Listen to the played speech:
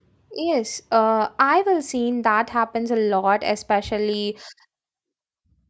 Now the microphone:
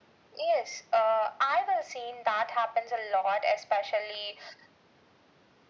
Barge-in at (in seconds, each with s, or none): none